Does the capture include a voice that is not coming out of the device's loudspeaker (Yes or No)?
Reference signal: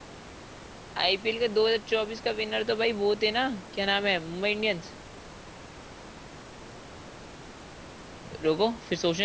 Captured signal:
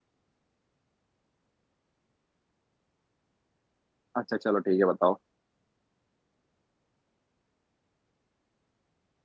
Yes